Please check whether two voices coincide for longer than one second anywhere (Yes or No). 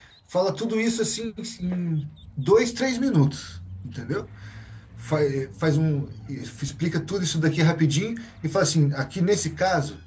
No